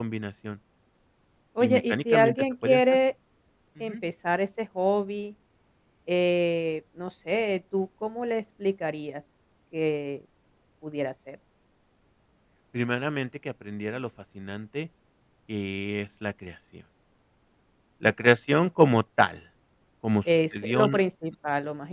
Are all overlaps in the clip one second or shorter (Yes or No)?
No